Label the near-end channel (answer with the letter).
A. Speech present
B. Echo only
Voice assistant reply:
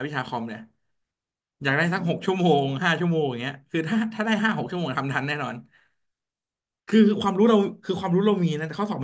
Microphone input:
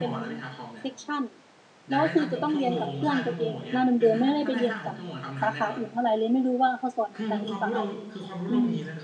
A